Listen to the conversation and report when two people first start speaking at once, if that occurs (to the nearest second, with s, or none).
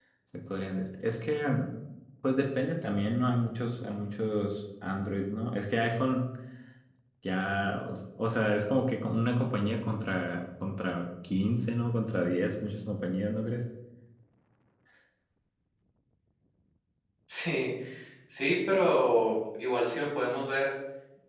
none